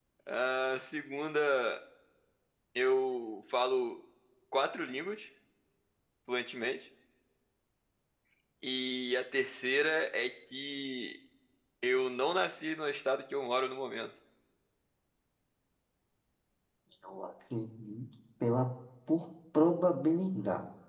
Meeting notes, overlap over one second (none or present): none